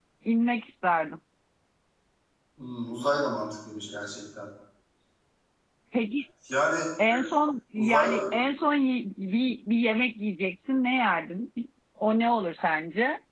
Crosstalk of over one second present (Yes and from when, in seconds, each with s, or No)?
No